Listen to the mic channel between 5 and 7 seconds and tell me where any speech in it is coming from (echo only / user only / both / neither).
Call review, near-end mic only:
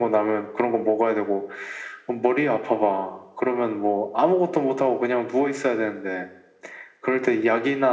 echo only